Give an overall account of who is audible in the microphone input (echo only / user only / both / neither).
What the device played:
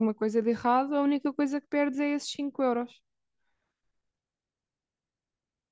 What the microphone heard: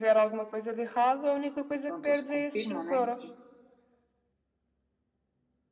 both